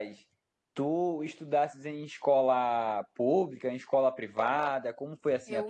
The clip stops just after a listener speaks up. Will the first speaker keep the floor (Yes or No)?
No